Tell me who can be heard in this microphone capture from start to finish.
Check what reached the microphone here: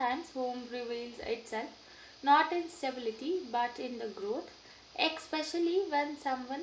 user only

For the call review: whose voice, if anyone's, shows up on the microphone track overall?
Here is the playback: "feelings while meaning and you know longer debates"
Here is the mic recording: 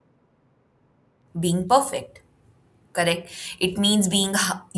user only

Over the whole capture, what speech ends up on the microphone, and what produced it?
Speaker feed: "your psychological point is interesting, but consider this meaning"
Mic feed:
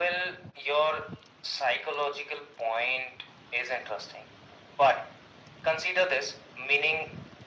echo only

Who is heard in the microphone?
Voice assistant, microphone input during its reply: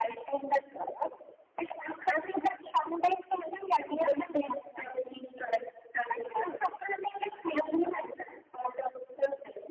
echo only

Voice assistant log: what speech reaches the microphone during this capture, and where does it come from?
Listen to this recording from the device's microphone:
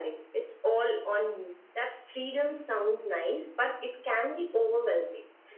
echo only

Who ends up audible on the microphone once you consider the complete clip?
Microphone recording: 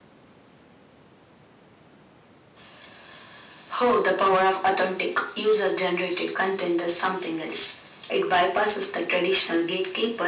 echo only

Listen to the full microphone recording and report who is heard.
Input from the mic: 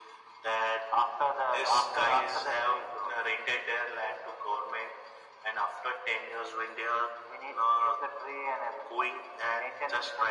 echo only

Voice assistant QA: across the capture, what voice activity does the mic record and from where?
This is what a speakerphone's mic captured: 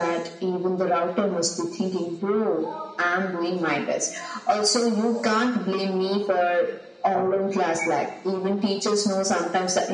echo only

